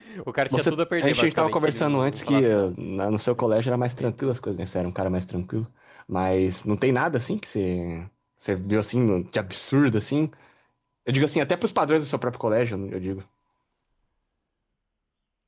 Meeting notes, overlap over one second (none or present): present